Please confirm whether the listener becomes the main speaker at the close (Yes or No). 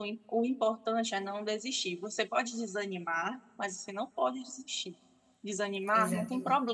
No